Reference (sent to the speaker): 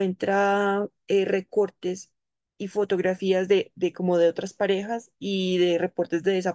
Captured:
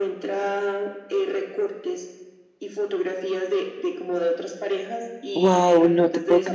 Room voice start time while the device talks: 5.3 s

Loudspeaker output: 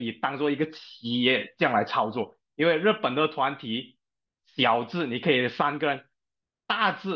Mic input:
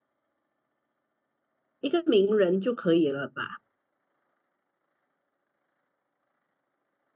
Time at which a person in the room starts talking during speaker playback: 1.8 s

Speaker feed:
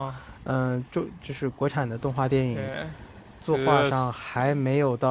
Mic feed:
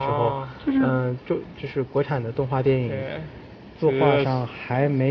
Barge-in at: 0.6 s

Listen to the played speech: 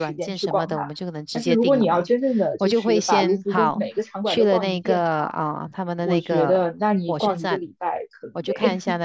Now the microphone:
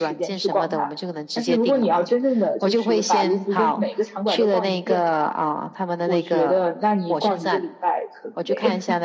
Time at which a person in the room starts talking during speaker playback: none

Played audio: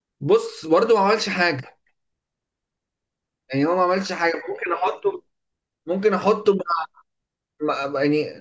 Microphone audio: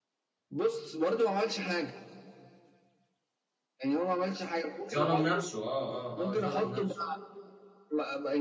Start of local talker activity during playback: 4.9 s

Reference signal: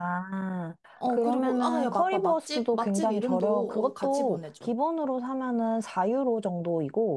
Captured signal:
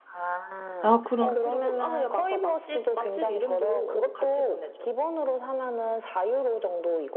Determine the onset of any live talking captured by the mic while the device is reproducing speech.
0.8 s

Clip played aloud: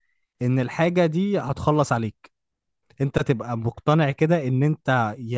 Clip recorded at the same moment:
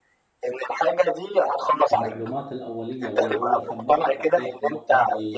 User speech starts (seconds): 1.9 s

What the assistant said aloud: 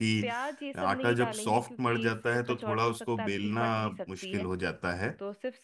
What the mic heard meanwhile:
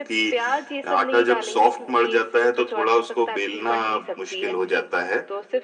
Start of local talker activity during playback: none

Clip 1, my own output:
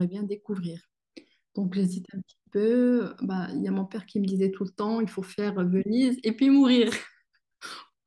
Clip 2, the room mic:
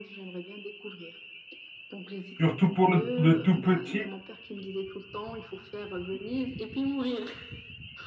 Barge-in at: 2.4 s

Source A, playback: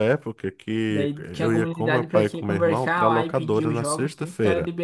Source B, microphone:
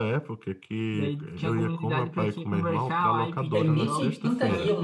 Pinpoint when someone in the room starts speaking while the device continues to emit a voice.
3.5 s

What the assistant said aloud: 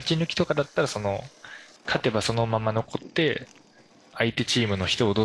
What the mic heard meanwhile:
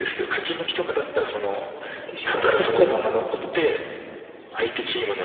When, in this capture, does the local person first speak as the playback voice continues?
1.8 s

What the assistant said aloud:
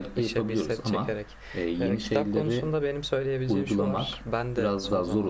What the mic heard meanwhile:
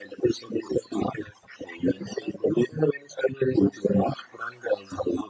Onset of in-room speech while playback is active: none

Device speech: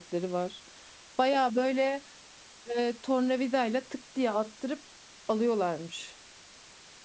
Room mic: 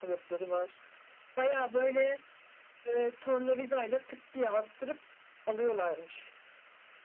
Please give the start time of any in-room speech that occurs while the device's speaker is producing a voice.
none

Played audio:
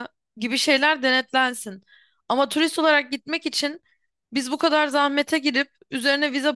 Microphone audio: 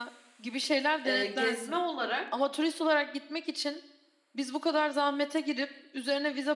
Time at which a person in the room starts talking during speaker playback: 1.0 s

